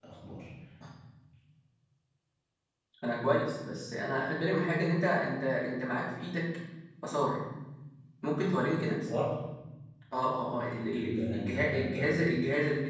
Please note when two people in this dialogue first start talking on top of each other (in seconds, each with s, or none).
11.0 s